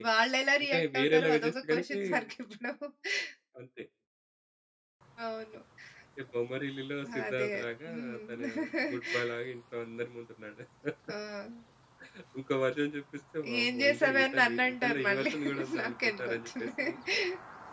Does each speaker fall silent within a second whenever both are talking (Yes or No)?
No